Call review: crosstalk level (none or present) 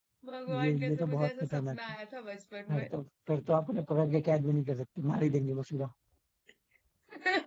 present